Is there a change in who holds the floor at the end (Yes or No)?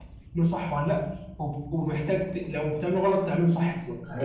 Yes